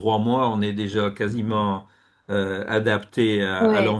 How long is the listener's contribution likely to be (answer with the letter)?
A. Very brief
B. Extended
B